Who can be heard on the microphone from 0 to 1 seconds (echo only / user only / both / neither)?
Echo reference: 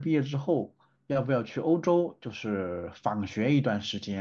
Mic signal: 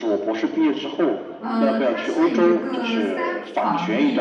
echo only